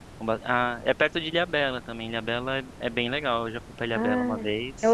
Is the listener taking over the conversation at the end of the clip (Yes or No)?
Yes